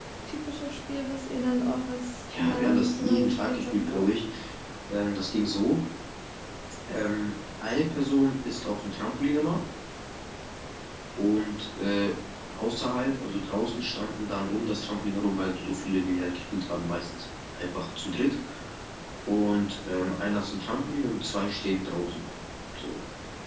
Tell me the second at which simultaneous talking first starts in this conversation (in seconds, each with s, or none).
2.3 s